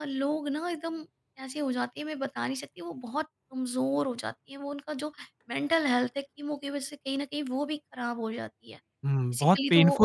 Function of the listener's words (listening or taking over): taking over